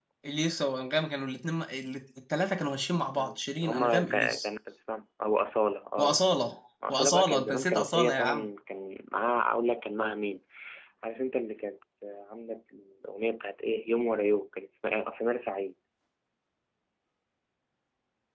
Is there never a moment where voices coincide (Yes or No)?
No